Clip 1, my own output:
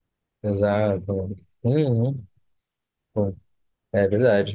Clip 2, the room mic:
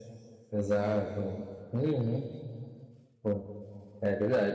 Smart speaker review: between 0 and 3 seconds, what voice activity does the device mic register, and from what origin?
echo only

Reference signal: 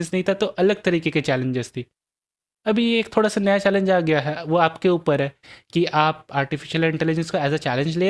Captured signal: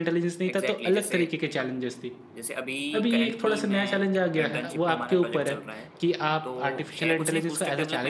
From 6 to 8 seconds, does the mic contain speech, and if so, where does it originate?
both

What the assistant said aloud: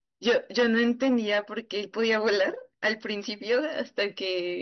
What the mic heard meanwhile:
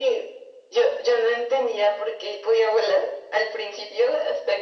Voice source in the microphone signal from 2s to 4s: echo only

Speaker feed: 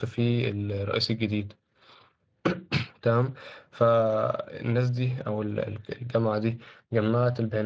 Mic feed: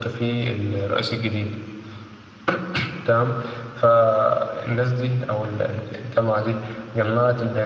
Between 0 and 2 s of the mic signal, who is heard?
echo only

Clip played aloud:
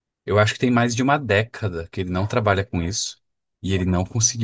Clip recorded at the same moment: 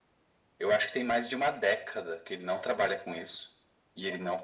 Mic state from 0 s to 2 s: echo only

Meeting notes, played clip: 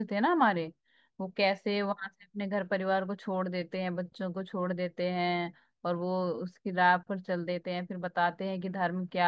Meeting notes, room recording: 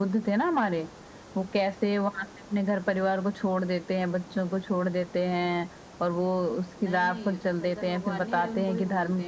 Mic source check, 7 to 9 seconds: both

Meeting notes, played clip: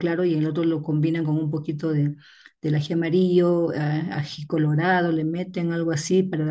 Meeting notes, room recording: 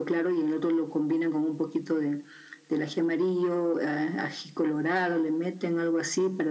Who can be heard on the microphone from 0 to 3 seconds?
echo only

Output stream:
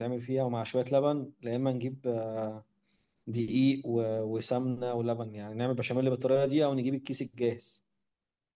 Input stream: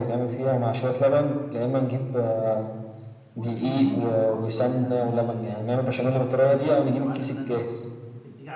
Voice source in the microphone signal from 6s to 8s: both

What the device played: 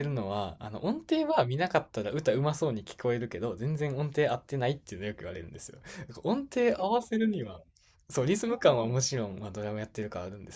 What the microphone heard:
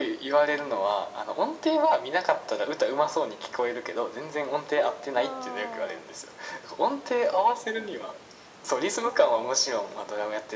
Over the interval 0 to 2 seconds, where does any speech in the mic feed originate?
echo only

